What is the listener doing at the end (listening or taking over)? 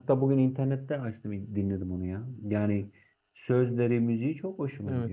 taking over